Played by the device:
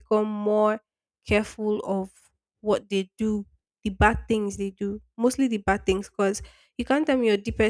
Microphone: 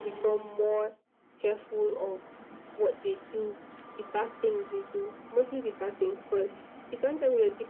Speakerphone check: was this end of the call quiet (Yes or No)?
Yes